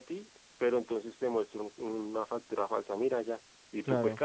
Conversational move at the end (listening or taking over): listening